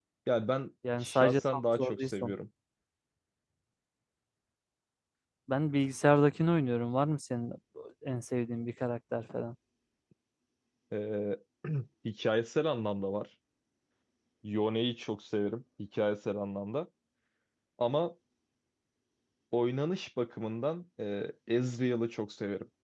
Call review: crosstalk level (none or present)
present